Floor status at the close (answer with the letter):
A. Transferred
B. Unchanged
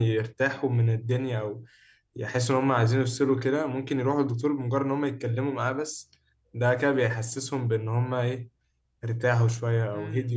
A